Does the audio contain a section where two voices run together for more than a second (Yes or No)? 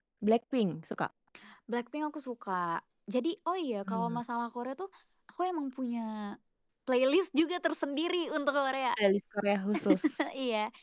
No